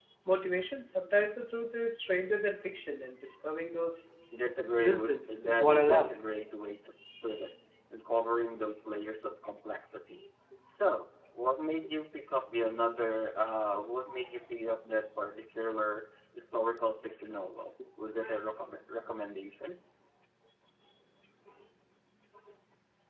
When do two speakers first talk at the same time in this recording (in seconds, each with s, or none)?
4.8 s